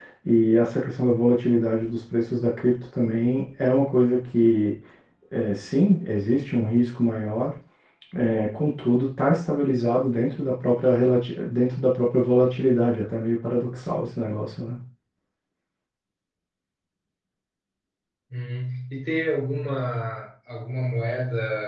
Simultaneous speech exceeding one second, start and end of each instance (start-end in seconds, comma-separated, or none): none